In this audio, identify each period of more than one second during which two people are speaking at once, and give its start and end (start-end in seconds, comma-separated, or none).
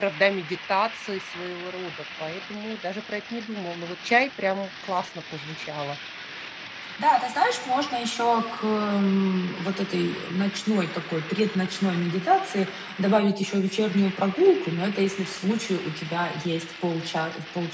none